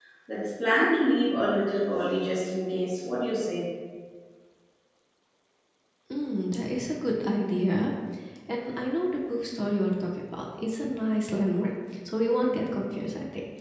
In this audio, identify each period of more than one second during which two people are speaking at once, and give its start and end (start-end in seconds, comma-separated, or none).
none